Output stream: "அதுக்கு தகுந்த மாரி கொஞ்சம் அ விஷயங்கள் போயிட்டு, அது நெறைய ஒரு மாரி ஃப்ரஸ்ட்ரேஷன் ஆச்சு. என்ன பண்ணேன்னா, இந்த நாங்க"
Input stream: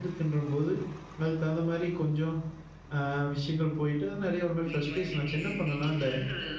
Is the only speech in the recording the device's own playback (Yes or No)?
No